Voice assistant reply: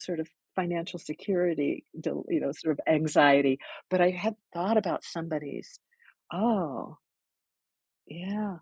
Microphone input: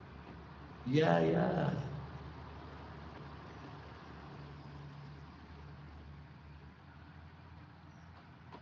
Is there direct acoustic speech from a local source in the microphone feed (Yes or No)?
Yes